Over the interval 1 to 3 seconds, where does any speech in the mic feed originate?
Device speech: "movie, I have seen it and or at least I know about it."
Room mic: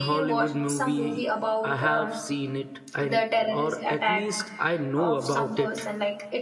both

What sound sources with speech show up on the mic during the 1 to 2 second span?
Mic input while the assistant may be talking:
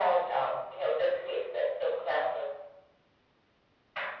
echo only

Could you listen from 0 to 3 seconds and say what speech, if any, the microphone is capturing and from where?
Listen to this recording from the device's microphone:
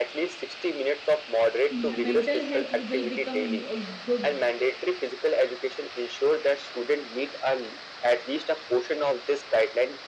both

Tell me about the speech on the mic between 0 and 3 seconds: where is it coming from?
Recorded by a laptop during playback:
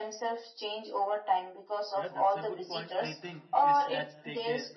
both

